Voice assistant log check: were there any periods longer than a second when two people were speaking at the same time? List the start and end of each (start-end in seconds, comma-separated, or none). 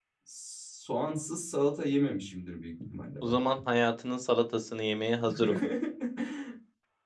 none